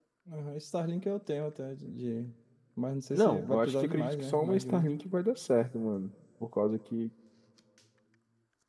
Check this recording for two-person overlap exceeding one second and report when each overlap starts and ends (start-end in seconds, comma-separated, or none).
3.1-4.9